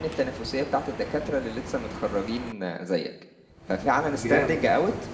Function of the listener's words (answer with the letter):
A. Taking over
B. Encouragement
B